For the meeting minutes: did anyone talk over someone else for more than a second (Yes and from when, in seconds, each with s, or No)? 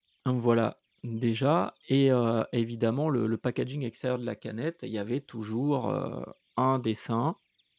No